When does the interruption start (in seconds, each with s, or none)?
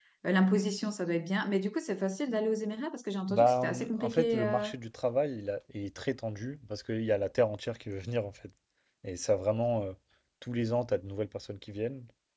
3.3 s